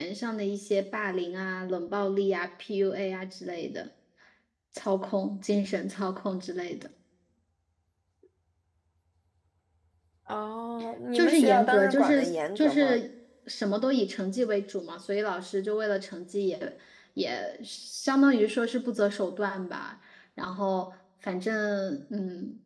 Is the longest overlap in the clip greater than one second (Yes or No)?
Yes